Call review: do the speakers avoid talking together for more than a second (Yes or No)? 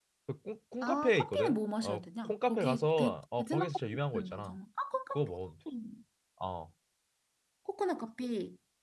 No